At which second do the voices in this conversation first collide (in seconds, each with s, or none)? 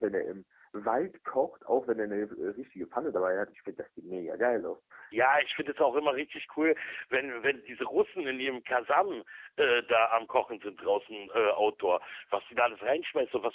none